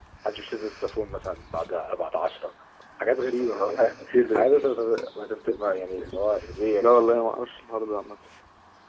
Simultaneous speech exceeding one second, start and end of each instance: none

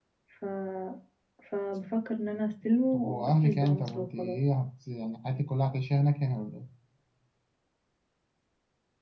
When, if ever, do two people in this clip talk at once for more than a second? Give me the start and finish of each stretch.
2.9-4.4

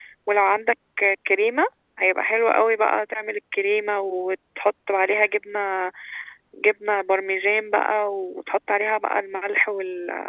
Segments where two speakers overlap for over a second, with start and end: none

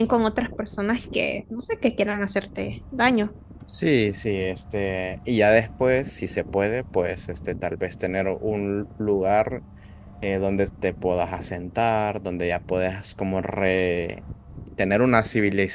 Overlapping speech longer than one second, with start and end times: none

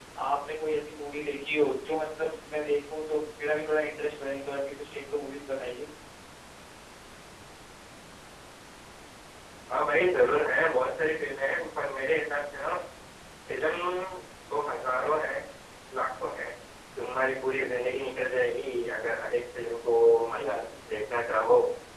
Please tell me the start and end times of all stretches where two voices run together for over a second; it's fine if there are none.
none

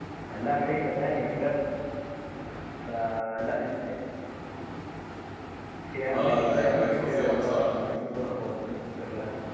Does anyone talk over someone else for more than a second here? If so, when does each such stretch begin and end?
6.1-7.8

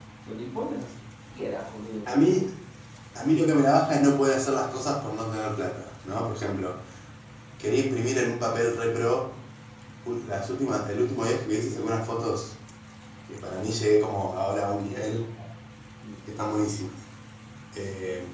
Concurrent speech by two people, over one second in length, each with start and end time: none

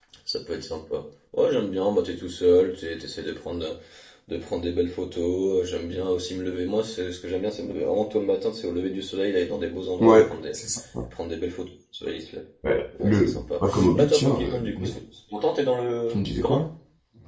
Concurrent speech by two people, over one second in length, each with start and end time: 13.0-15.0

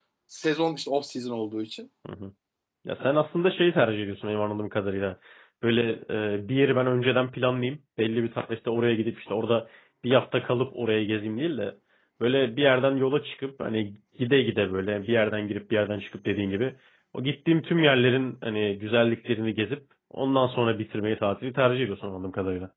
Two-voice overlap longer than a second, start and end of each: none

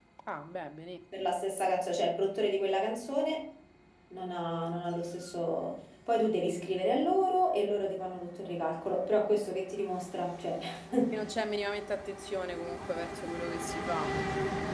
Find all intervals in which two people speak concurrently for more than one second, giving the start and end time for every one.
none

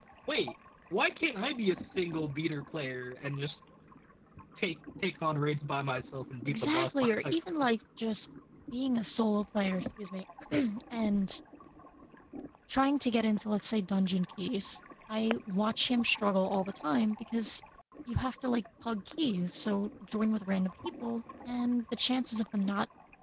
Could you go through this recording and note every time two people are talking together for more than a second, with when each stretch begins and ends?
6.5-7.7

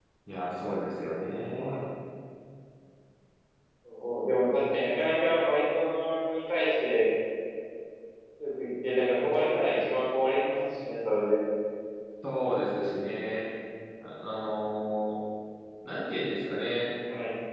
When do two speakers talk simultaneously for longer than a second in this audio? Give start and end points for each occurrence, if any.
none

